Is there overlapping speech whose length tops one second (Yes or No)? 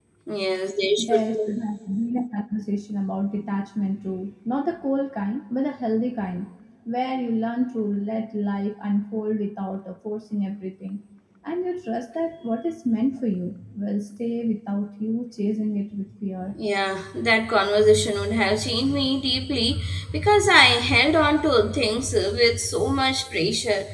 No